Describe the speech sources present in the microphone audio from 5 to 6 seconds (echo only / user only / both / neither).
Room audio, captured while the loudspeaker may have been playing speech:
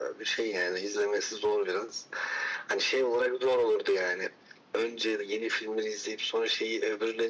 echo only